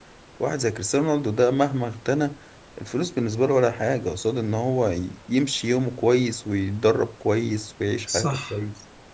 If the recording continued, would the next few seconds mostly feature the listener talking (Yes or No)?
Yes